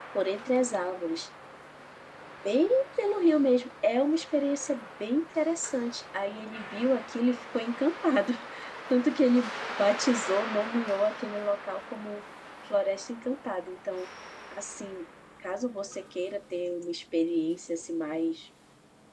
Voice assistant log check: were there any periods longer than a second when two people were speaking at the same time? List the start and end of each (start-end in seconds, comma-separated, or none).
none